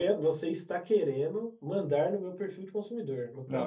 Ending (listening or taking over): taking over